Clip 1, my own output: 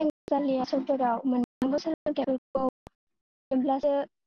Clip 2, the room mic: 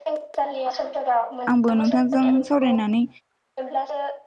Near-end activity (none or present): present